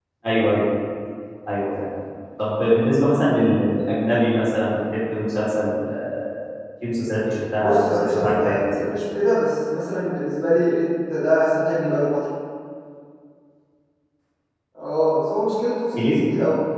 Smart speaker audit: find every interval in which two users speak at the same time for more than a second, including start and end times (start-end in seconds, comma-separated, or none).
7.6-8.9